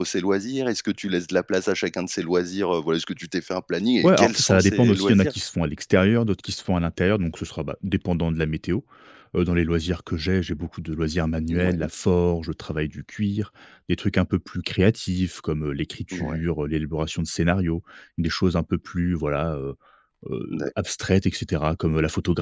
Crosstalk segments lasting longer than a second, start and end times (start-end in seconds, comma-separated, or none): 4.0-5.3